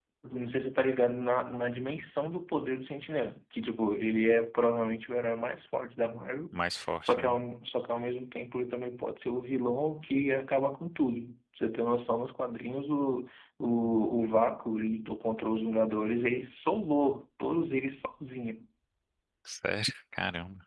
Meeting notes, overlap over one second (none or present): none